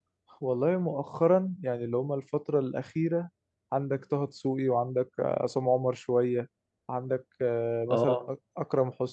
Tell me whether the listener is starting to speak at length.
No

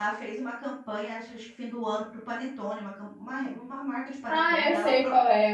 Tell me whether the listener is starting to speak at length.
Yes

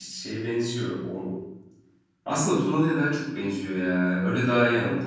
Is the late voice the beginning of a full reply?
No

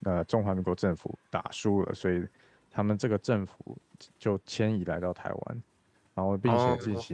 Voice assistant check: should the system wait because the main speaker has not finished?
Yes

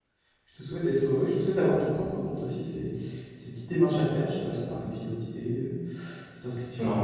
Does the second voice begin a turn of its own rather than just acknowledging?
No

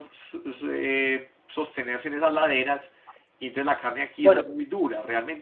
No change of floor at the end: Yes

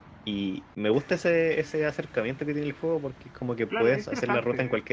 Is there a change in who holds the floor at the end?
Yes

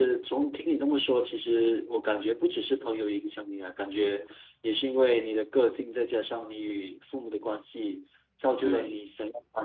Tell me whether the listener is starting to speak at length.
No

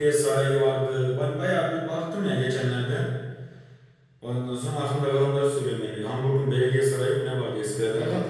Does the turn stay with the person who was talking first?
No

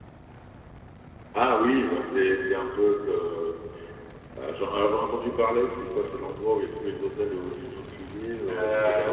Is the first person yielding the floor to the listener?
Yes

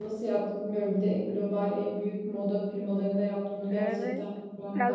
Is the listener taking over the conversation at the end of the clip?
Yes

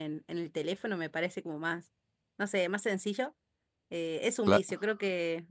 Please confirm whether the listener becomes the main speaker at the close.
No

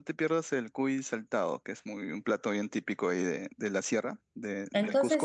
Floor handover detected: Yes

